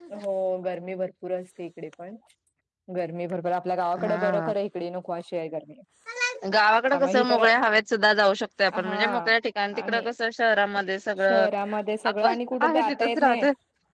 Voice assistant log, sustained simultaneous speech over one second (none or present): present